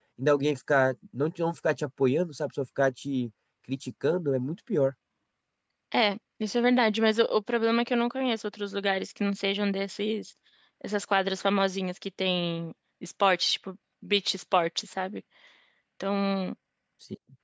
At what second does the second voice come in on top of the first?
none

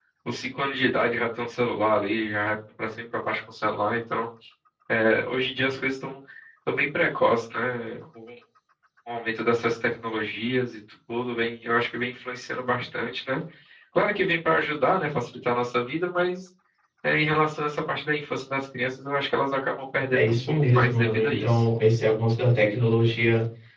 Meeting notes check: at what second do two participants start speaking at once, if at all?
20.1 s

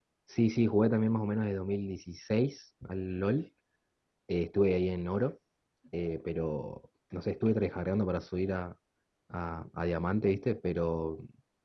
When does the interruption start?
none

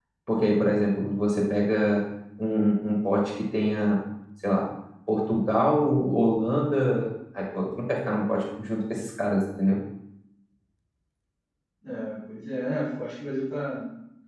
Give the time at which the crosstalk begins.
none

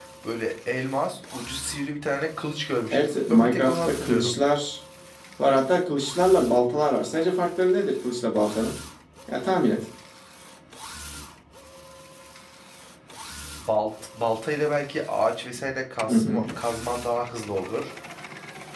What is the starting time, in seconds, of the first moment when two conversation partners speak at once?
2.9 s

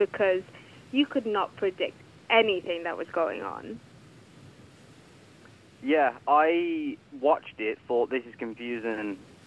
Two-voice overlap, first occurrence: none

